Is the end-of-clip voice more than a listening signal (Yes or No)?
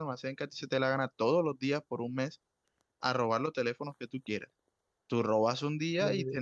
No